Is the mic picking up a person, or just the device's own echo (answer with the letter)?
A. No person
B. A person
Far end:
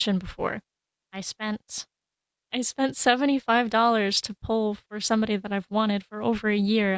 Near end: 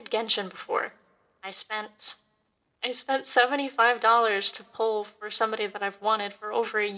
A